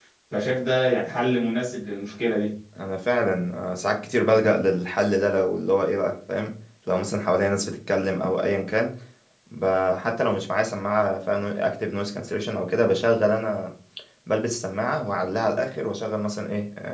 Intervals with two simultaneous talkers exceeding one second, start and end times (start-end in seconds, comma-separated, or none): none